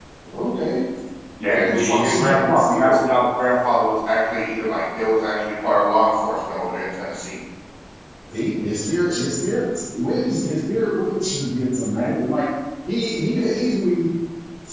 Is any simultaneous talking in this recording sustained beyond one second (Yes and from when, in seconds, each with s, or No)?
Yes, from 1.4 s